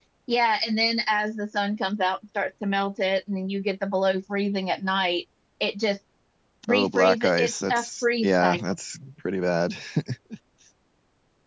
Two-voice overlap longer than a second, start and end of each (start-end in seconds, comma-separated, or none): 6.7-8.6